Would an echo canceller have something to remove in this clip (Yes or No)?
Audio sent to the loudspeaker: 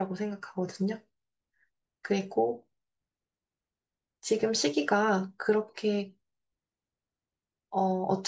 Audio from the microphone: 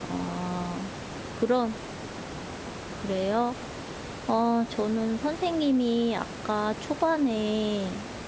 No